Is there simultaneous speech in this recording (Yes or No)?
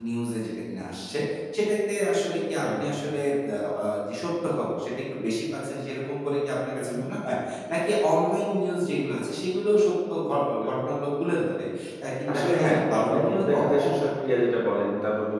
Yes